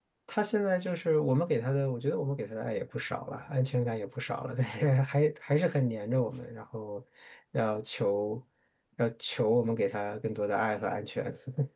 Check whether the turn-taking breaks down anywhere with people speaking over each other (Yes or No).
No